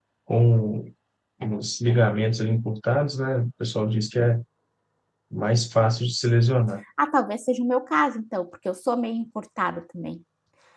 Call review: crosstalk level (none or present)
none